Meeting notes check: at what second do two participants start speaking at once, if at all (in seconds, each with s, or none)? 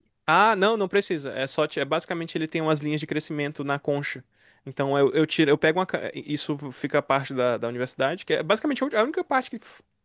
none